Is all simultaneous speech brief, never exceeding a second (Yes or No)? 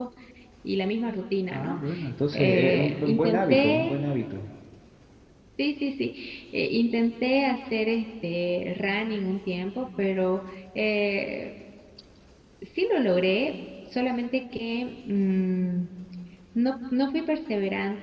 No